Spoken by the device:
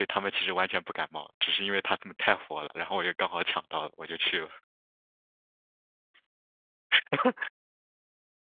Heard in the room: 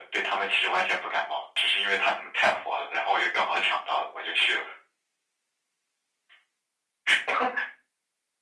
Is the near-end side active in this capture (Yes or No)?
No